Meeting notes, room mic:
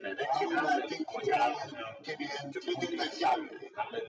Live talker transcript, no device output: none

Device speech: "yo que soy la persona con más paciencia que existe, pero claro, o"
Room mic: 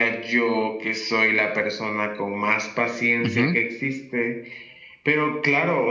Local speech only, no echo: Ujú.

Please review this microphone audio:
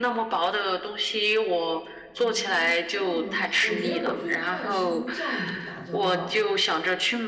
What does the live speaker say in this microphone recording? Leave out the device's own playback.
哦，是这样吗？我觉得我最怕的是跟酵母打交道，

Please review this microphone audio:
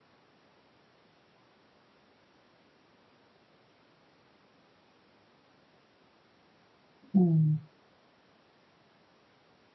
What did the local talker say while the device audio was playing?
음.

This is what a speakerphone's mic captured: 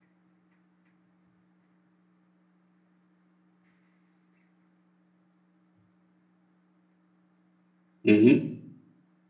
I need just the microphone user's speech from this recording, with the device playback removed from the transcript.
mhm.

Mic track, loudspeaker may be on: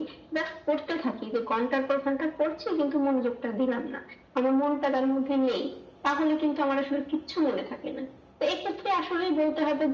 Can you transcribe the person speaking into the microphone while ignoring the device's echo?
none

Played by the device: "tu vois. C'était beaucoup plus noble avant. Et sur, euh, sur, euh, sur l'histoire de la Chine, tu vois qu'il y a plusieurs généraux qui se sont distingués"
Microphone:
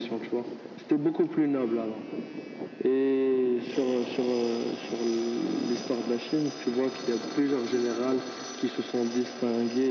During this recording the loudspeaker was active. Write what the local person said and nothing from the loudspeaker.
none

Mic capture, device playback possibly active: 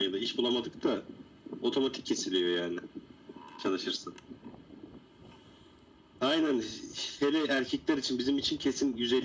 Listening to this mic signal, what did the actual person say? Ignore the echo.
none

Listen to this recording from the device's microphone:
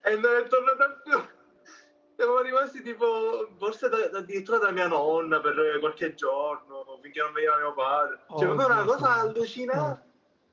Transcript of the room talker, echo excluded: Oddio santo. Eh.

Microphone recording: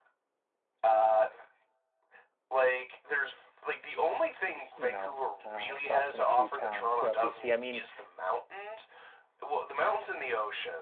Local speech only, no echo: We, s- you know, uh, stopped in a few towns throughout BC. I mean,

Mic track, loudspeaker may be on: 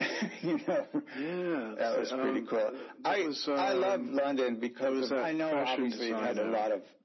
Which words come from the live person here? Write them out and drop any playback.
none

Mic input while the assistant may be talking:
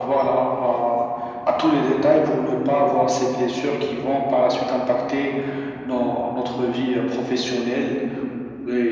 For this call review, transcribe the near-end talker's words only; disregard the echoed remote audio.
none

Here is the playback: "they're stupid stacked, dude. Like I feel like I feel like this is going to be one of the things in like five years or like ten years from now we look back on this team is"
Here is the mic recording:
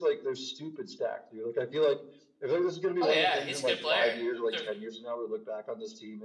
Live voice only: Oh yeah, he's a good player. Sure.

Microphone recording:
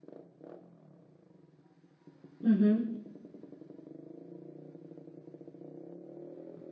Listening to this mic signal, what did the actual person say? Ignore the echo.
Hı hı.

